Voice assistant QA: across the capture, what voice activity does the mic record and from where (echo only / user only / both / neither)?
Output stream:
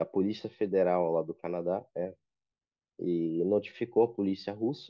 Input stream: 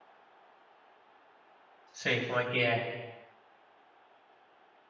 user only